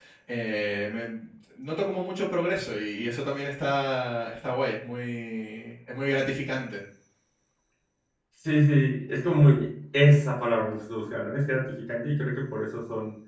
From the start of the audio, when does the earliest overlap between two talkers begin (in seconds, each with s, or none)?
none